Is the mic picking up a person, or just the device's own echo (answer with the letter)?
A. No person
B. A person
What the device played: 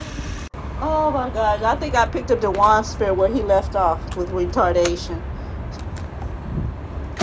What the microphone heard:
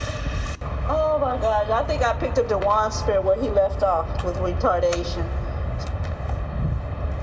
A